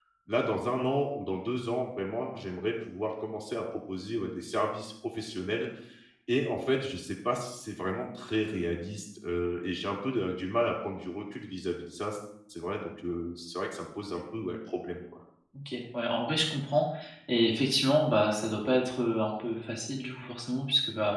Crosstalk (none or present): none